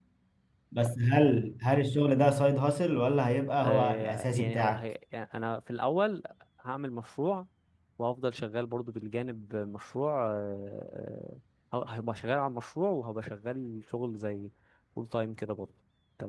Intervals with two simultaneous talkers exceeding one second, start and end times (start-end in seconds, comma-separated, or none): 3.6-4.9